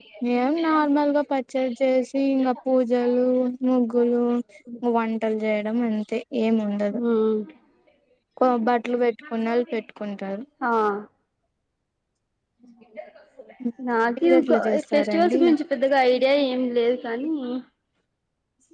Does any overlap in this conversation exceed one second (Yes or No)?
Yes